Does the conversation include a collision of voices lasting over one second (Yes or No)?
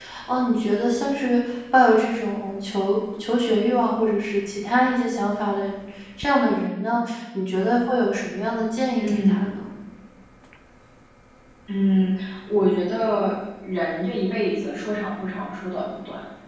No